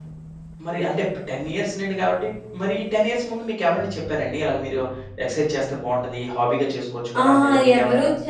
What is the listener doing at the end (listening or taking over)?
taking over